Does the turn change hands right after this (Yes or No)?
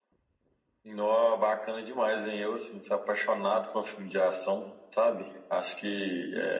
No